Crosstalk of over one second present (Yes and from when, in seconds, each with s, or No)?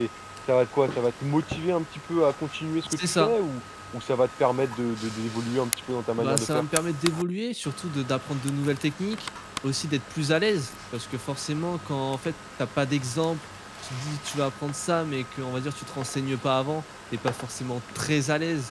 No